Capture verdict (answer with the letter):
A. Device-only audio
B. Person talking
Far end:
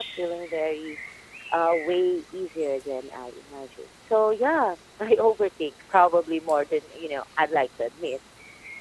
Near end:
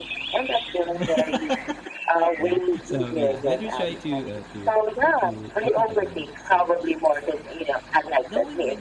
B